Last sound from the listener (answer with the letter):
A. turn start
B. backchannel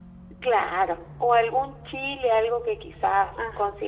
B